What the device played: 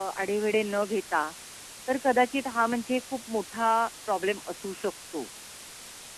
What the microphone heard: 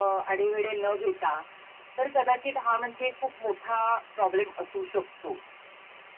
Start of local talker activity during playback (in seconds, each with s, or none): none